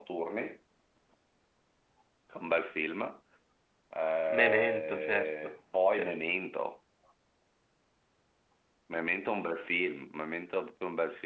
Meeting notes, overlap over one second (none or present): present